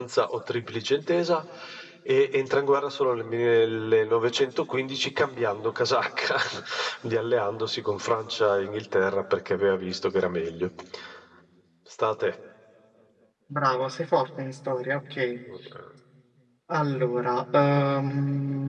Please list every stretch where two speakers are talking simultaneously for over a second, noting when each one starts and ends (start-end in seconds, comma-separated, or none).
none